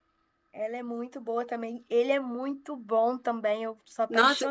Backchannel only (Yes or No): No